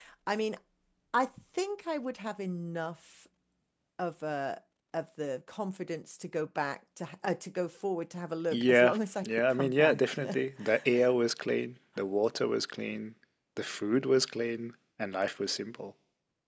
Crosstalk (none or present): present